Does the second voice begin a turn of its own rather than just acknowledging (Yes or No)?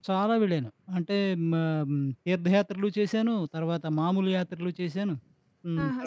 Yes